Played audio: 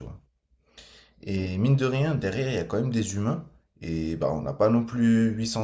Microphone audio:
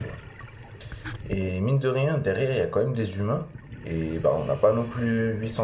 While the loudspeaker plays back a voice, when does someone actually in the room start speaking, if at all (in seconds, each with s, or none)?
none